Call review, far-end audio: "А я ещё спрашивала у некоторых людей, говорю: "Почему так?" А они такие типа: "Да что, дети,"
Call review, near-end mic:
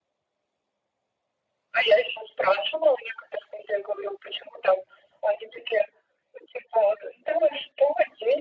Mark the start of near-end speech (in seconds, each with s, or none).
none